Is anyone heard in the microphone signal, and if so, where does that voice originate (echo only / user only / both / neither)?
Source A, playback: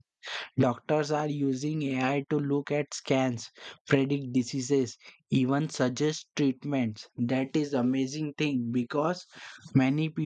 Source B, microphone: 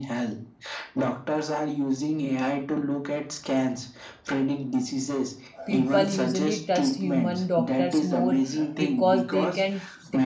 both